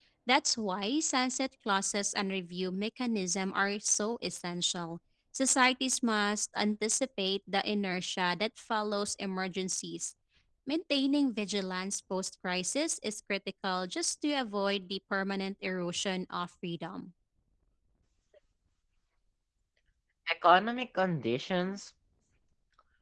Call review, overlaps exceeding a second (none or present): none